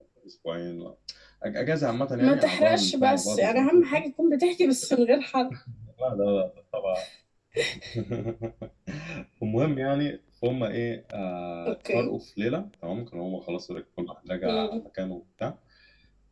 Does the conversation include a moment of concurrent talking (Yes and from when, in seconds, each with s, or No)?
Yes, from 2.2 s